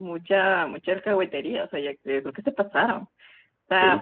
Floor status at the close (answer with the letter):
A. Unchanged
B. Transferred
B